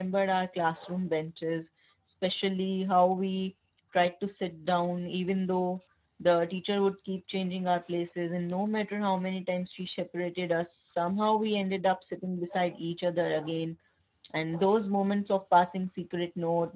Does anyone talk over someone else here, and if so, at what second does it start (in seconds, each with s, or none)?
none